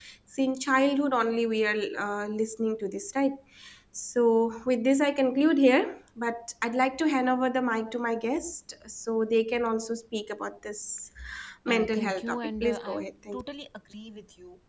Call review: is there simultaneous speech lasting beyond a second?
Yes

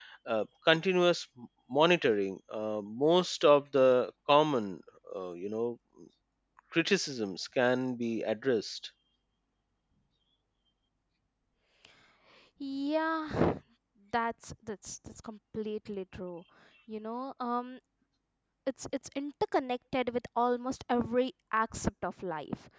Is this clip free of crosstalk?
Yes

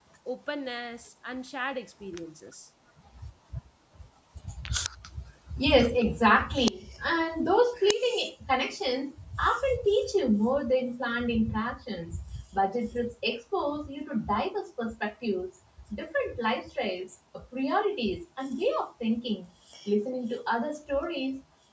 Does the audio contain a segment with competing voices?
No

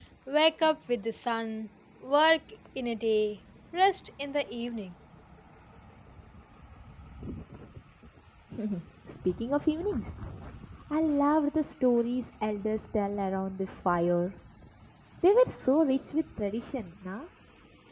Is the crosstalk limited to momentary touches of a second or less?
Yes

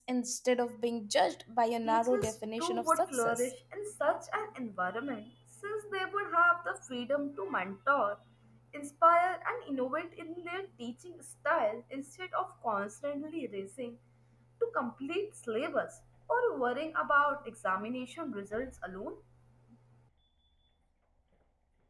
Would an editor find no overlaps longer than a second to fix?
No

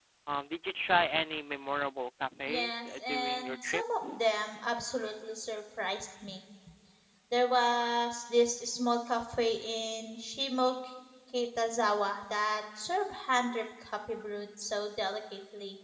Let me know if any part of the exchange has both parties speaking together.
Yes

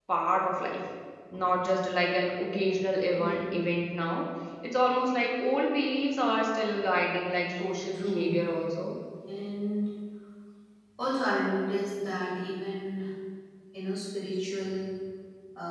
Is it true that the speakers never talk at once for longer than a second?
Yes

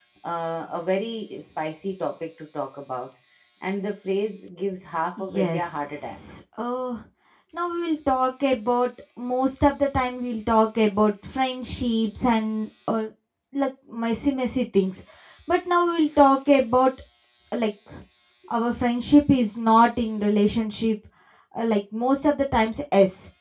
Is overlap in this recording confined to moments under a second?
No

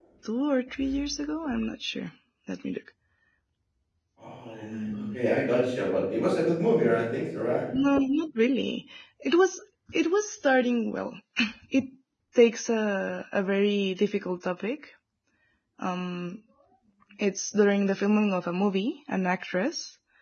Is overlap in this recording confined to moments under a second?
Yes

